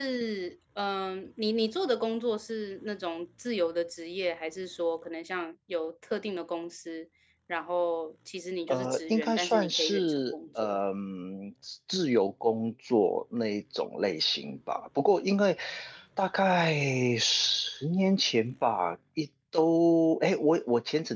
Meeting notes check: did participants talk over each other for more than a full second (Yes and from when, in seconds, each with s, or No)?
Yes, from 8.7 s